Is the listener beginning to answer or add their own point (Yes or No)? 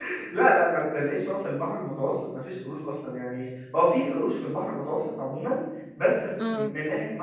No